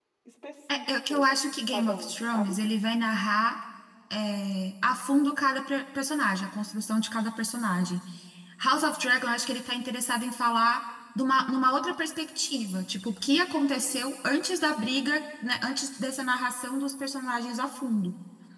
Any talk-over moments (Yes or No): Yes